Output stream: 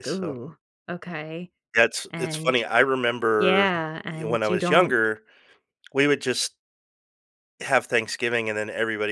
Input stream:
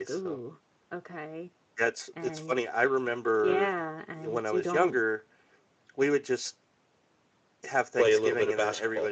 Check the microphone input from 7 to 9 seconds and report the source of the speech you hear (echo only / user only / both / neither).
both